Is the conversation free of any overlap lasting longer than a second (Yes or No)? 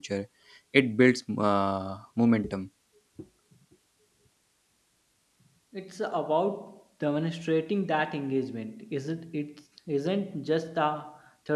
Yes